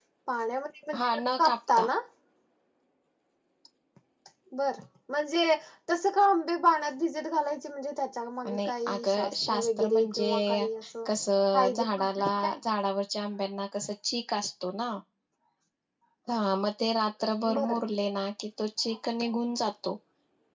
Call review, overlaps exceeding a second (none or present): present